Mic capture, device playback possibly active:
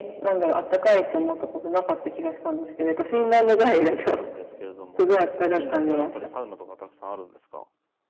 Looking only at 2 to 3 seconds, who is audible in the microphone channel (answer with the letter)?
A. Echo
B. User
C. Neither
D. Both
A